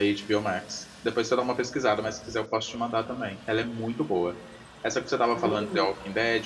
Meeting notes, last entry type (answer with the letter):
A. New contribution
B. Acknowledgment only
B